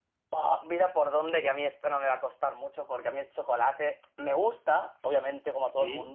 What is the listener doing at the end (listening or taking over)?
listening